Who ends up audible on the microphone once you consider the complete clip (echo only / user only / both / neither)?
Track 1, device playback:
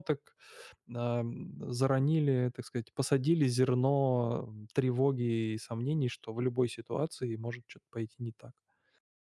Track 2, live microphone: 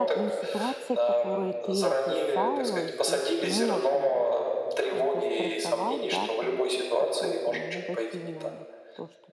both